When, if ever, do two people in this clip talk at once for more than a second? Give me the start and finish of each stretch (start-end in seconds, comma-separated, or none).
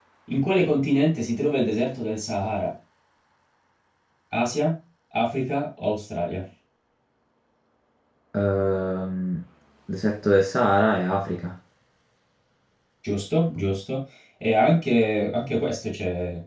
none